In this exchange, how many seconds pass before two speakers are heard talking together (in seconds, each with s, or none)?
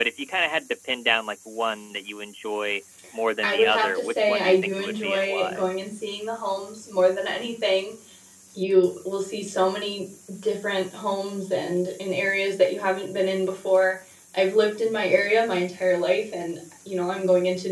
3.4 s